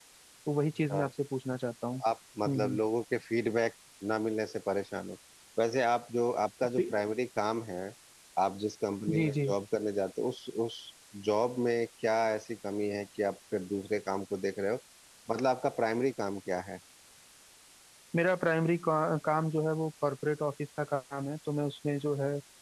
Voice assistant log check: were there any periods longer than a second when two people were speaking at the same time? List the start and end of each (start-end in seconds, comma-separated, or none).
none